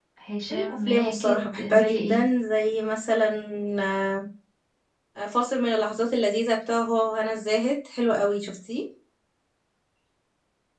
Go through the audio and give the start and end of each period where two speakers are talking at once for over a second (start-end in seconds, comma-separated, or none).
0.5-2.2